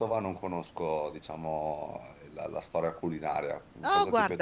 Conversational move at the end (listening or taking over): taking over